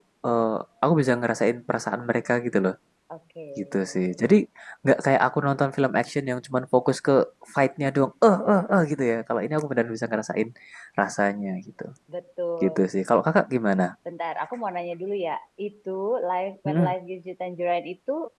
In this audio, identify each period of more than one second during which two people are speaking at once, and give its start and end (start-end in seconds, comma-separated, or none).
none